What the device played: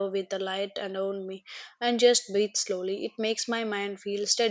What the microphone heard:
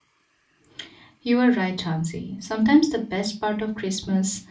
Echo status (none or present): none